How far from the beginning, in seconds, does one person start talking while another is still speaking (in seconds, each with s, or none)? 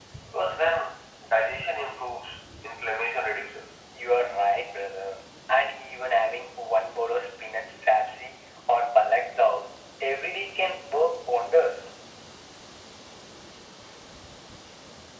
none